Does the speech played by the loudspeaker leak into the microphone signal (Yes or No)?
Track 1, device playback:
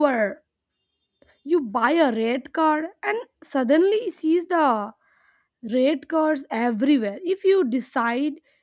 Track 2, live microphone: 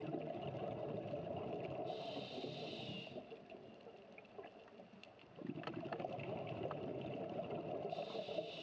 No